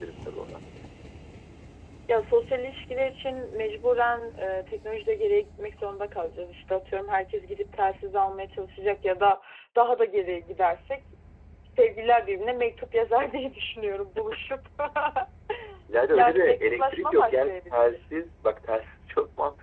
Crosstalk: present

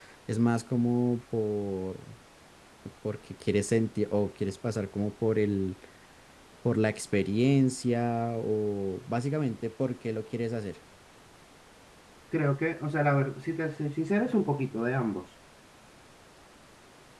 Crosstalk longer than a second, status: none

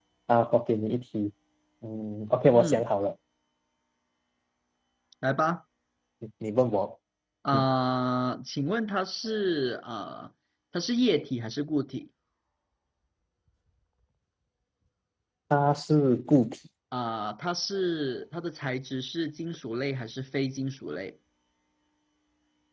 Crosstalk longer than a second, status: none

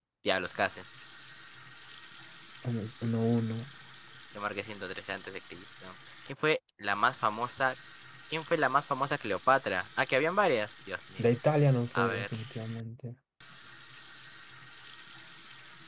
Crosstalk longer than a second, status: none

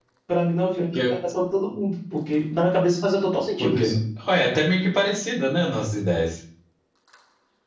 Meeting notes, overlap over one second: none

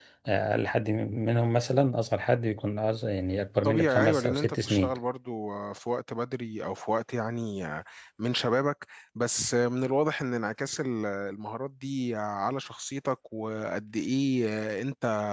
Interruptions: present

